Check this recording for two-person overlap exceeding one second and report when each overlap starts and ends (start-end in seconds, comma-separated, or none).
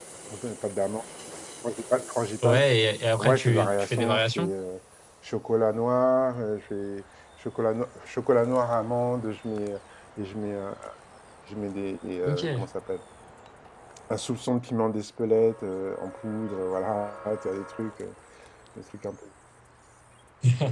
3.2-4.5